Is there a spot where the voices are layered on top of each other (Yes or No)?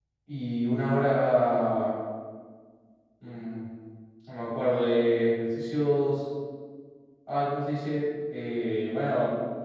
No